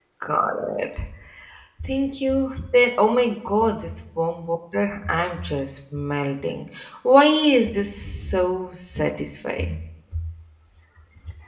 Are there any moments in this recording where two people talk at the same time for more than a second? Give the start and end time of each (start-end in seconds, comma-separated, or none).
none